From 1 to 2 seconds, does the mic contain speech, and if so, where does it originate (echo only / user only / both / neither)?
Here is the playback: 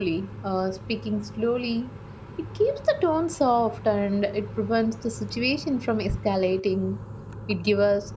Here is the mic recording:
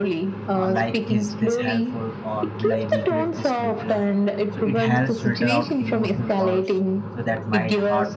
both